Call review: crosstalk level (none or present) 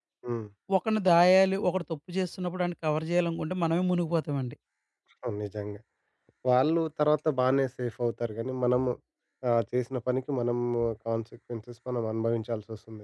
none